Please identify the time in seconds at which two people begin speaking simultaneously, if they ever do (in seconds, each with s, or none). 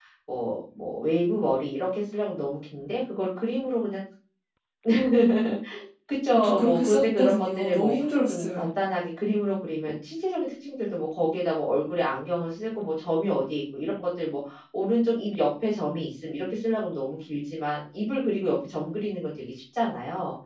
6.3 s